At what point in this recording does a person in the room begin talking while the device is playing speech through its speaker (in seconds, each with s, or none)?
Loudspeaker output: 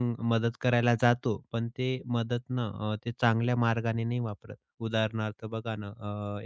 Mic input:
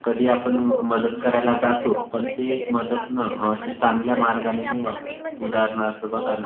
0.5 s